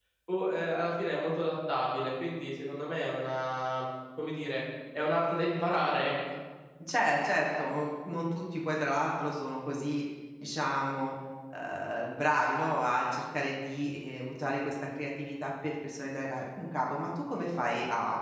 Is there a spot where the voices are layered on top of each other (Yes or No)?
No